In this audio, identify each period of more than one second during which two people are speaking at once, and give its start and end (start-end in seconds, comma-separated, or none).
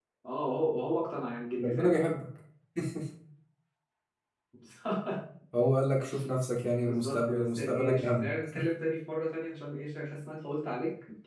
6.8-8.3